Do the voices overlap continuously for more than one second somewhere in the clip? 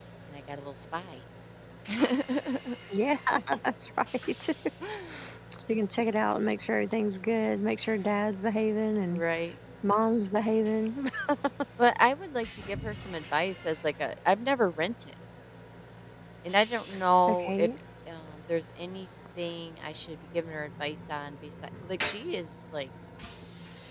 No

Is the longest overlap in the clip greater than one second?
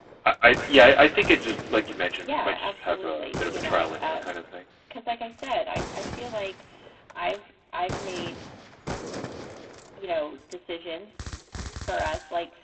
Yes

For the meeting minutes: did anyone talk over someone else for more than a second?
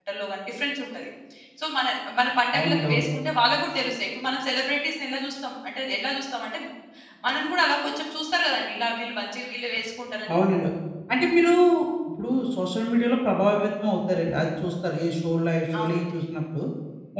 No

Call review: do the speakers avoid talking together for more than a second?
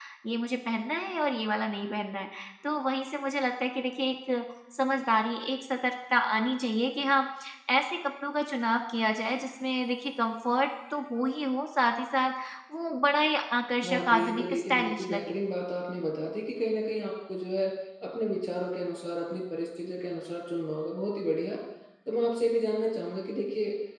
No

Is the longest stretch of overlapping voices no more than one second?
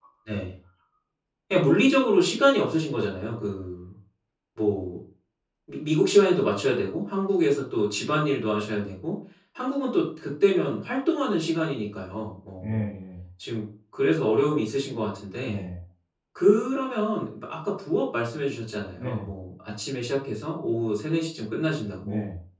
Yes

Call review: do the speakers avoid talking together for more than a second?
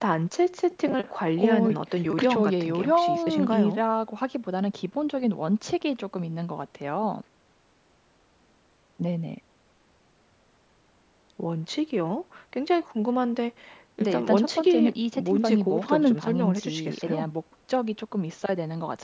No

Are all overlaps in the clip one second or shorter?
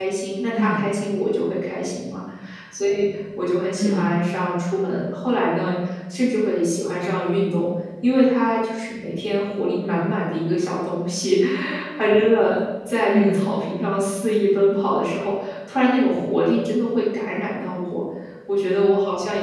Yes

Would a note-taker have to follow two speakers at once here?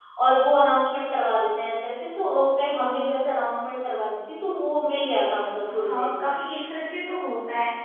Yes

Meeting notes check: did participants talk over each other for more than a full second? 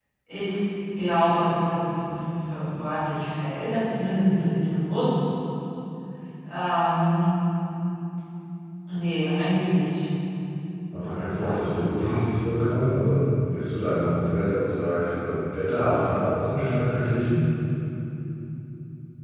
Yes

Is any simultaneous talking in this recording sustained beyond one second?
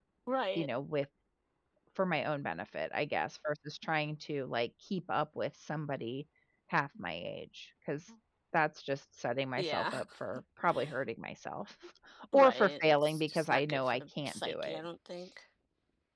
Yes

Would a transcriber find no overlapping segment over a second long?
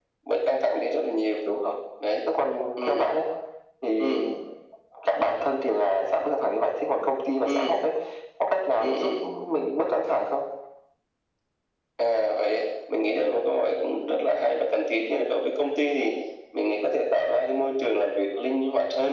Yes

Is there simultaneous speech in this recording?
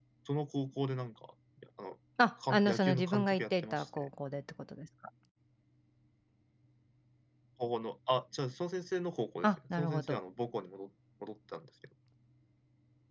Yes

